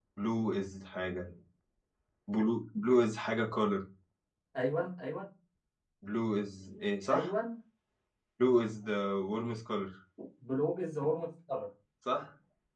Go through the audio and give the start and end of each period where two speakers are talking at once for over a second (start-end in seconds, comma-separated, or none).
none